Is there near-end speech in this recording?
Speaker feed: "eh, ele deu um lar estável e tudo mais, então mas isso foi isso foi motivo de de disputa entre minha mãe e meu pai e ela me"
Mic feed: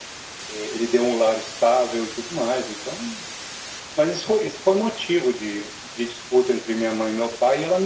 No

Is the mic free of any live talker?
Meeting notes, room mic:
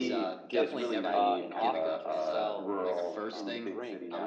No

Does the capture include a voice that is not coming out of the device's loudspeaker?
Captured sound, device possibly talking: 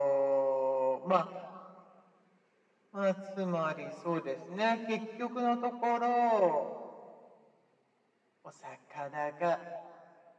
No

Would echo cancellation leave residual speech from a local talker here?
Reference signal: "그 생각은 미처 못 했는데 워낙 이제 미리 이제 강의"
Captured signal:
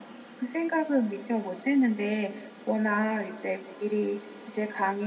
No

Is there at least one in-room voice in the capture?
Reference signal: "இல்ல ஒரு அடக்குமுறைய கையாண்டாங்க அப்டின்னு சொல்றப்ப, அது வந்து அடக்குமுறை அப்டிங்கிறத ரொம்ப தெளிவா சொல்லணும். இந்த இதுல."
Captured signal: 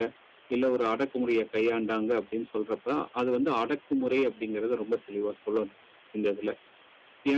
No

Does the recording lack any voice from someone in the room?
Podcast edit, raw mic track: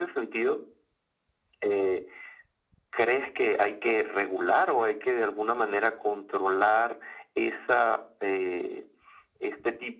Yes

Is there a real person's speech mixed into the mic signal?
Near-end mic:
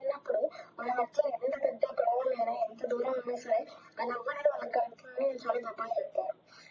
No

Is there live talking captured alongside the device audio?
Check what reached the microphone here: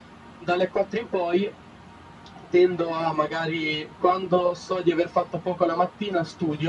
No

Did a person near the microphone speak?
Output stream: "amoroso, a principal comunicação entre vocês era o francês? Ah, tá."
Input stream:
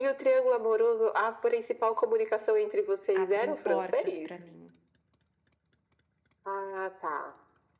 Yes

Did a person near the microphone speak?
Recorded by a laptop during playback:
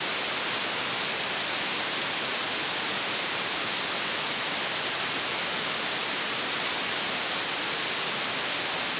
No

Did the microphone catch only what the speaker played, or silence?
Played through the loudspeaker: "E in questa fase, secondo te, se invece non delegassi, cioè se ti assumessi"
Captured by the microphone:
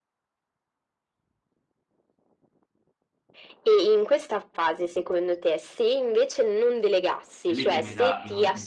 No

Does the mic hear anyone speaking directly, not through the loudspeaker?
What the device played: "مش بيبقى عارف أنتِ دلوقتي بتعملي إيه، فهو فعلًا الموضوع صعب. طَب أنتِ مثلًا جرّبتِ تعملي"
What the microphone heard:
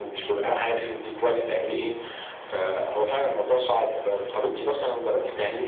No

